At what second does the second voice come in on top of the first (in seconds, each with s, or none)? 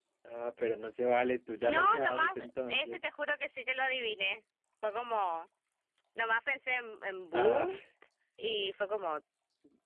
1.6 s